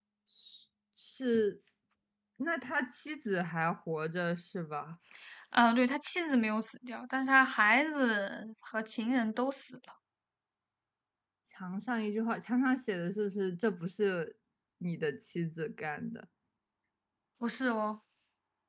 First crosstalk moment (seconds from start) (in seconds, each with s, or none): none